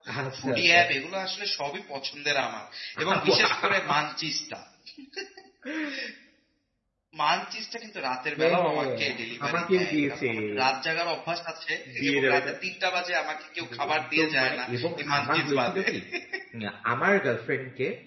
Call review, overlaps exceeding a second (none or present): present